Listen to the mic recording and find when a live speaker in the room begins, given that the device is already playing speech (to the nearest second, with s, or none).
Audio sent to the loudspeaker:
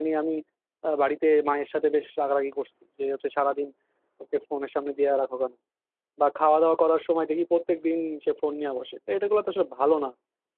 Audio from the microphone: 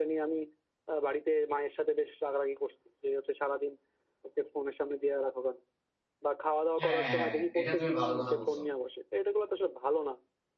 7 s